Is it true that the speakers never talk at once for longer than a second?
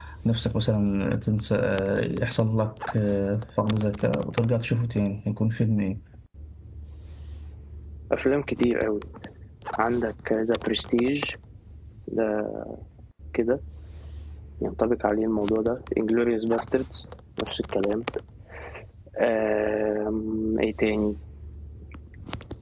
Yes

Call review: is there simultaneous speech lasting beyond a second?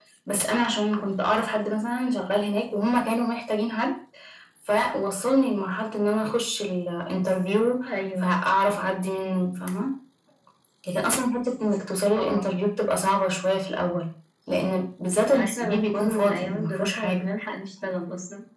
Yes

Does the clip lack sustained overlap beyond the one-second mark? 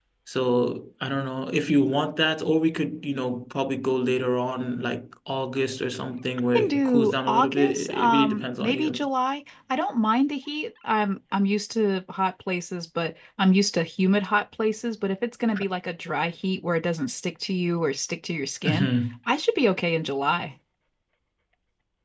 No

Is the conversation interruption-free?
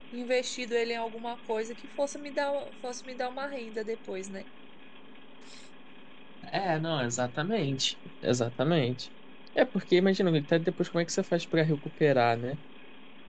Yes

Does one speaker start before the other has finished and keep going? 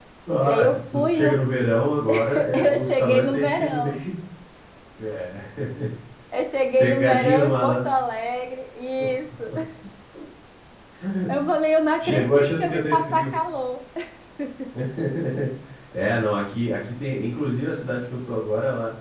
Yes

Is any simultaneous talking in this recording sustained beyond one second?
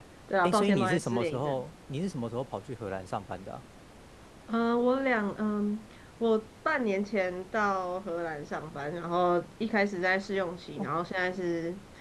Yes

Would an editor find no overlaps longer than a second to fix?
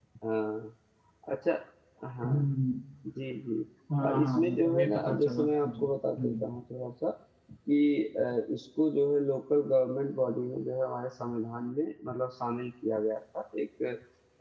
No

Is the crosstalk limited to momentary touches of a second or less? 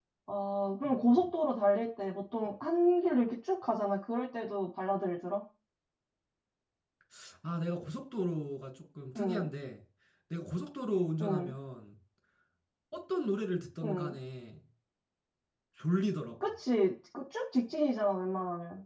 Yes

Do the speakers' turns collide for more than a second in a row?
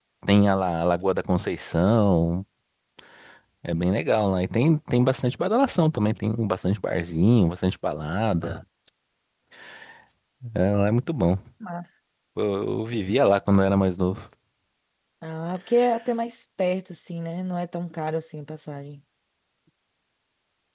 No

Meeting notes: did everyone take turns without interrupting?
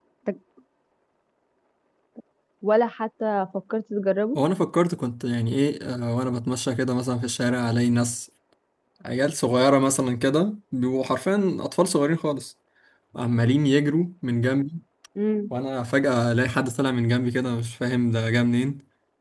Yes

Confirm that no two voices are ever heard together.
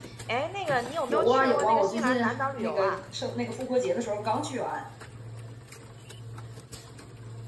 No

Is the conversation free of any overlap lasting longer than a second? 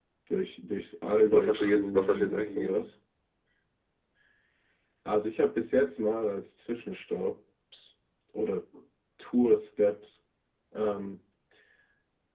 No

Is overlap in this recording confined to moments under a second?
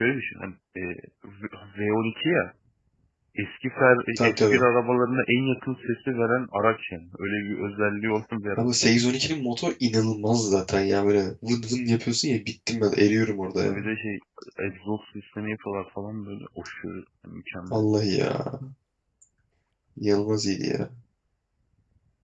Yes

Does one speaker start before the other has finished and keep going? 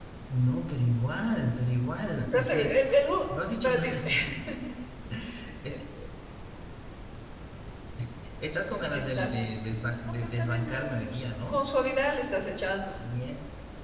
Yes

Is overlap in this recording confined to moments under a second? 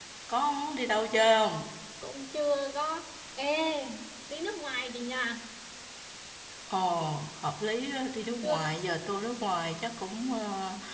Yes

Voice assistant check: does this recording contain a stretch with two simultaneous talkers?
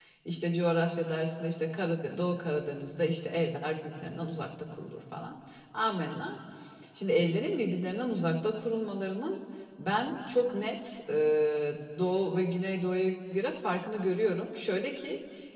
No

